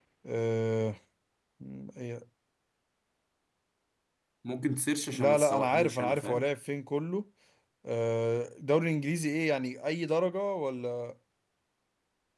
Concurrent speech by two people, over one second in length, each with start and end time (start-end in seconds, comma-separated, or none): 5.1-6.5